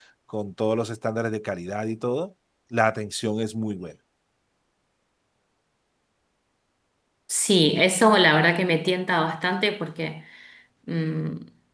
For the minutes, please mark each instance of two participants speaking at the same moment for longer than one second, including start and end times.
none

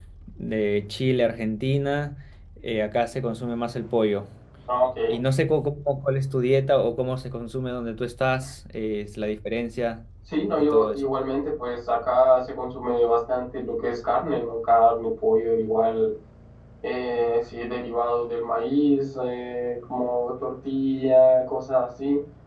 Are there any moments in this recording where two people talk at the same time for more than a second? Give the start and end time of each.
none

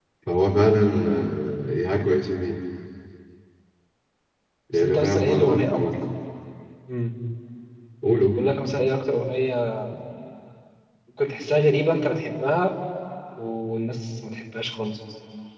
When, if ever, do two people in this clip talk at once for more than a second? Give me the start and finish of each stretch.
4.7-5.9

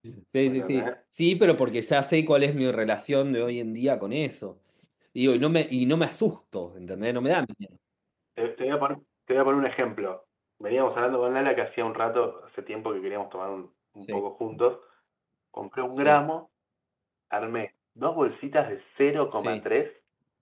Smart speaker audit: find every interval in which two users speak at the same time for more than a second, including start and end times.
none

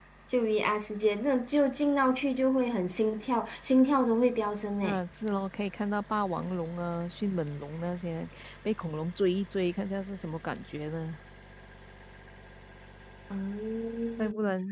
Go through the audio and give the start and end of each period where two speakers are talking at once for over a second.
none

